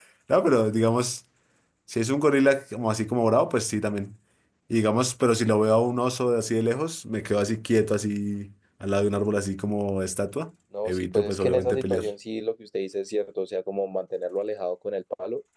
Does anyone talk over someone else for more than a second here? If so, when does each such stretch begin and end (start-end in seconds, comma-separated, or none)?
10.8-12.1